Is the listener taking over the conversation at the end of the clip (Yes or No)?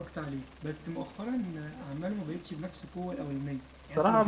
No